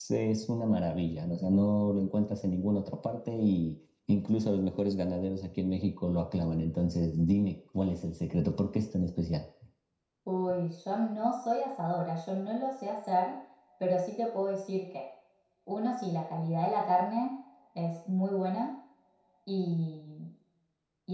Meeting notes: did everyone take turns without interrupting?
Yes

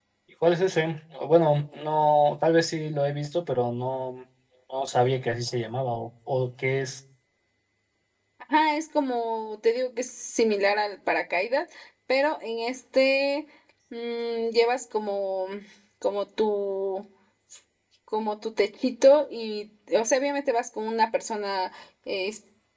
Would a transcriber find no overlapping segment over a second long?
Yes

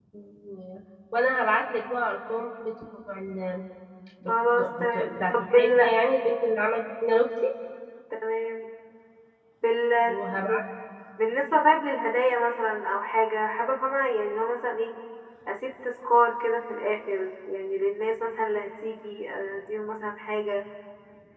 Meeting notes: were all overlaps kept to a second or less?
No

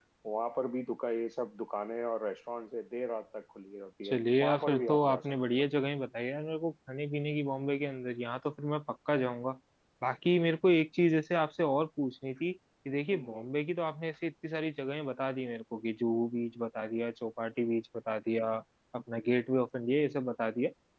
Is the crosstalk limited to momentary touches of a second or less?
No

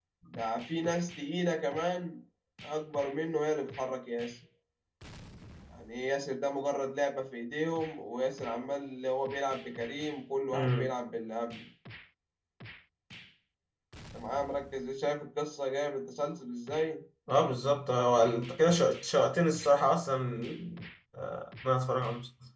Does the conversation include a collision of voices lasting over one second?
No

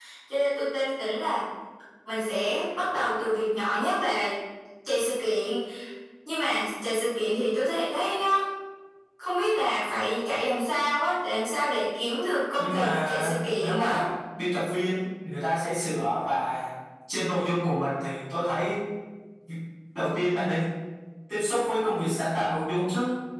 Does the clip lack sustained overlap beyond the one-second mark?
No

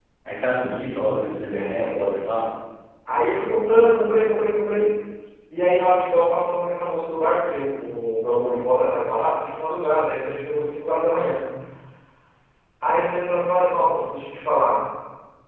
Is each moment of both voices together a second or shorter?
No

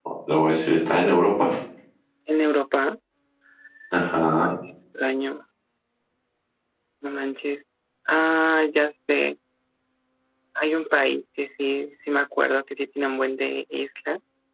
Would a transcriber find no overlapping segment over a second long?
Yes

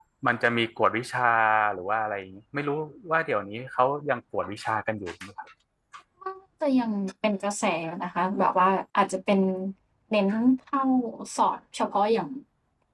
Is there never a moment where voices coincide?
Yes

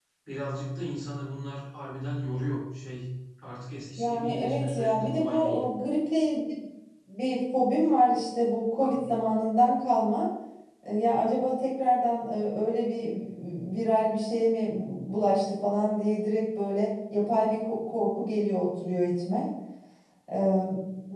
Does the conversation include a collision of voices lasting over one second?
Yes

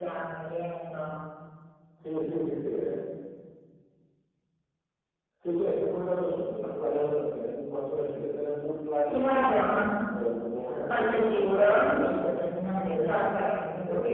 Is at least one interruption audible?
Yes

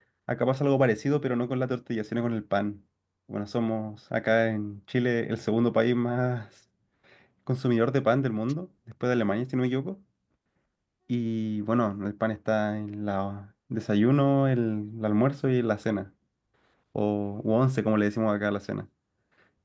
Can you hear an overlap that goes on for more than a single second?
No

